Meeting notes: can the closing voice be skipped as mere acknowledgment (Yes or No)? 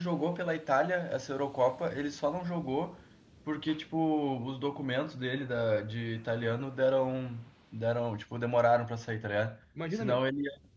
Yes